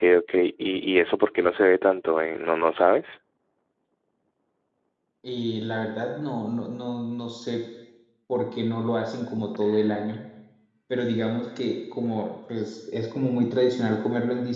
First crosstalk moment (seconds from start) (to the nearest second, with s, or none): none